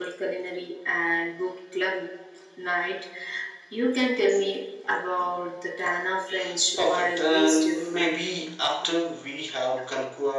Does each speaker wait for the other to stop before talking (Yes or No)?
No